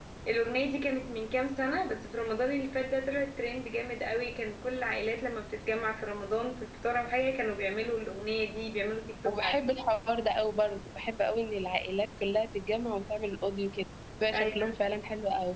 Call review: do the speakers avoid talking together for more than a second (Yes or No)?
Yes